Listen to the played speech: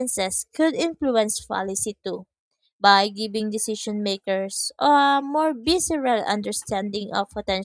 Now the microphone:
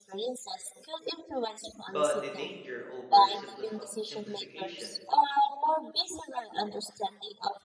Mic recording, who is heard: both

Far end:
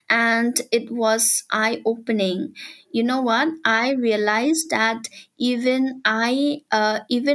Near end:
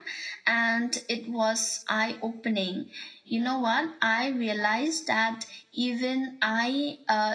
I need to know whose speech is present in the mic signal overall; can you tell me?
echo only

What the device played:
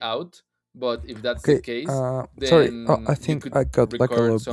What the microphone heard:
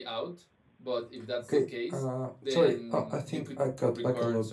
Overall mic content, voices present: echo only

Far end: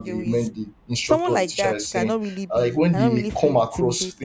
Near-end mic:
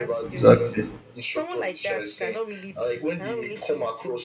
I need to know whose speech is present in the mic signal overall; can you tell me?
both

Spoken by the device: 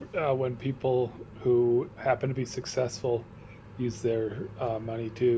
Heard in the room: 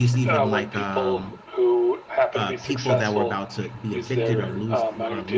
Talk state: both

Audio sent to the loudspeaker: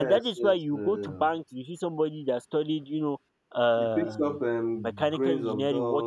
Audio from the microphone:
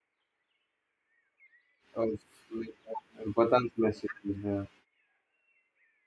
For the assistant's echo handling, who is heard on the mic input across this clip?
user only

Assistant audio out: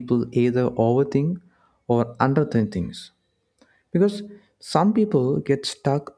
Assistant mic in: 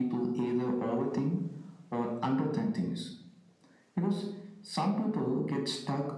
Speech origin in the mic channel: echo only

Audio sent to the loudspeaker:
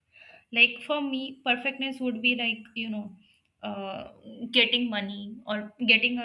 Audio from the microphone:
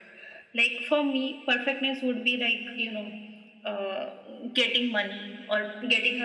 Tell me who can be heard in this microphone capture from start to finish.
echo only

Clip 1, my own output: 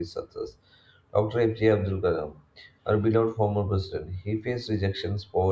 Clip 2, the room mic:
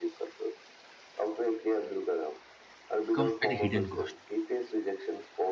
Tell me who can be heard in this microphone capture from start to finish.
both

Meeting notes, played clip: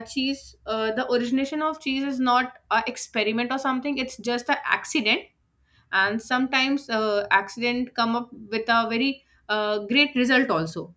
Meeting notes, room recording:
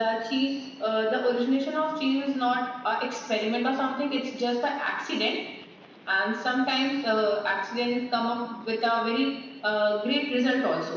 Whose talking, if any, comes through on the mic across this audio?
echo only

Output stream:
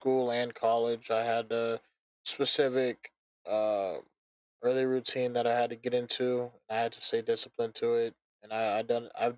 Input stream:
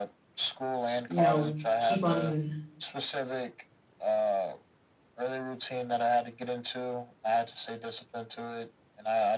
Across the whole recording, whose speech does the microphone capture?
both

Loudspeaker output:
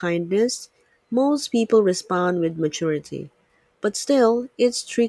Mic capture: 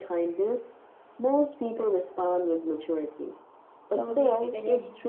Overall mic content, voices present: both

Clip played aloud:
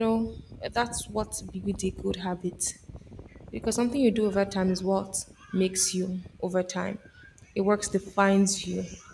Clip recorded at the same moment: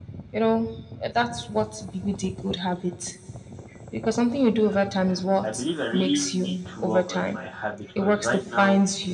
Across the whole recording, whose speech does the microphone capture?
both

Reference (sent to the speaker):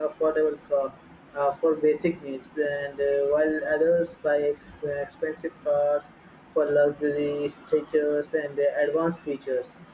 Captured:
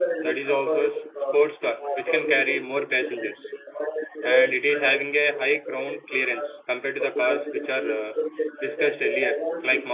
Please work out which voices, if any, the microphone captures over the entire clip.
both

